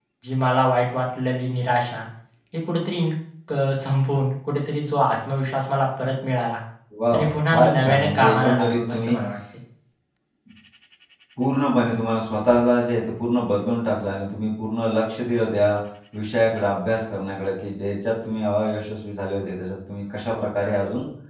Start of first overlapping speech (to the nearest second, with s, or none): 7 s